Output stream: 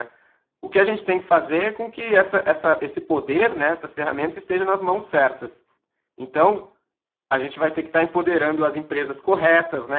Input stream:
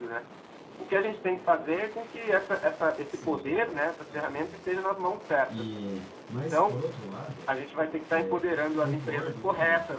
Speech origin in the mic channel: both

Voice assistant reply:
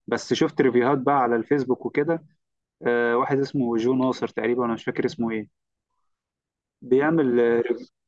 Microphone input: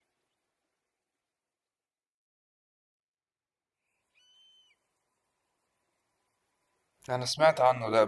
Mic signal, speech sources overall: user only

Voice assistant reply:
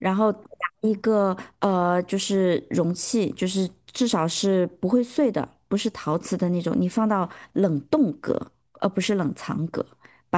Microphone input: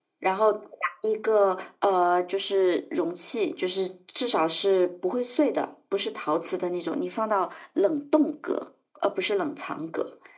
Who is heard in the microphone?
echo only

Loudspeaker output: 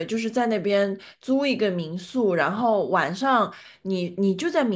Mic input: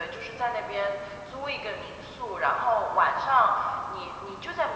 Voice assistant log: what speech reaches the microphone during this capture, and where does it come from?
echo only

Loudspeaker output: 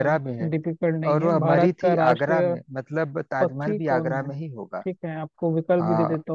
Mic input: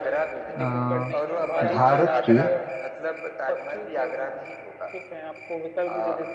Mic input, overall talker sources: both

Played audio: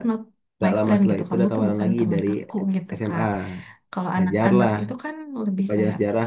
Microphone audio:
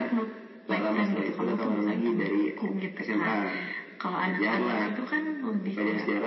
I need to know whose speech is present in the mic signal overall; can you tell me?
echo only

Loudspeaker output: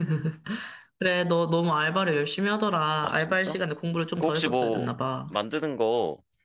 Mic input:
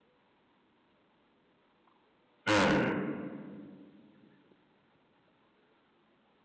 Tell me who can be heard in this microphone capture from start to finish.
user only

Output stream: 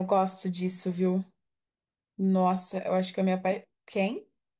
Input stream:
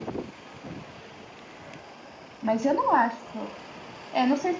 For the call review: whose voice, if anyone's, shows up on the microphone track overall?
user only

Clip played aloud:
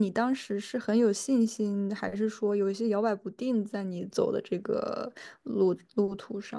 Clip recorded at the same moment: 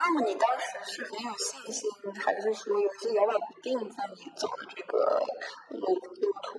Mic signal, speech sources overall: echo only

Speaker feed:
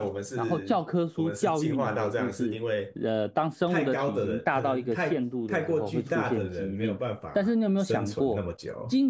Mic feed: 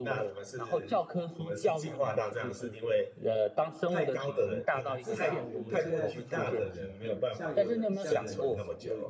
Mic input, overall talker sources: both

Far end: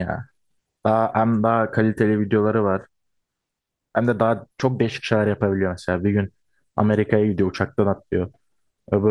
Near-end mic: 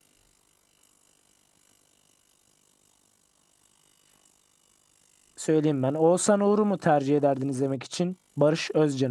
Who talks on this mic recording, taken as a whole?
user only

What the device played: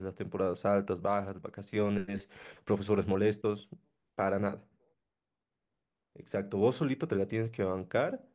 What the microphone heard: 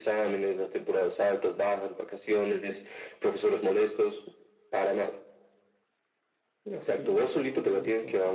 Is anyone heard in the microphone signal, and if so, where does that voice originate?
both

